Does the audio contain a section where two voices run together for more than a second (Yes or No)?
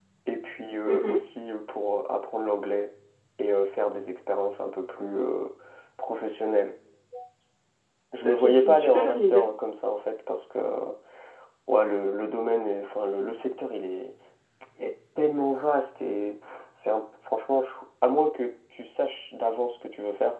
Yes